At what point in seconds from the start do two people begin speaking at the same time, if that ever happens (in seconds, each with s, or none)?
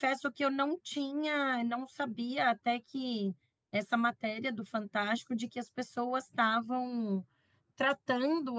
none